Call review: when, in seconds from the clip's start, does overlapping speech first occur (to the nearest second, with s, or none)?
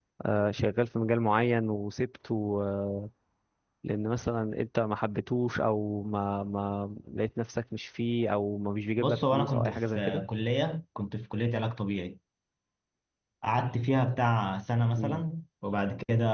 9 s